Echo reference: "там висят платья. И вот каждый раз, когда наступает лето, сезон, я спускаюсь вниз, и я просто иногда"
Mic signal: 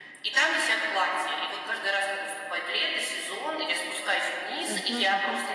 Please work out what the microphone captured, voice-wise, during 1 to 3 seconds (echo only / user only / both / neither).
echo only